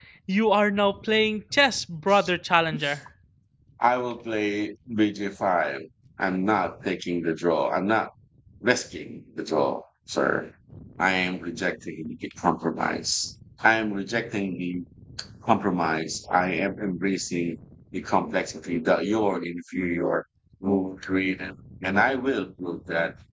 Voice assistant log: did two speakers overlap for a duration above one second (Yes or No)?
No